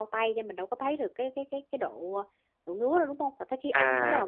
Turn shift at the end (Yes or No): Yes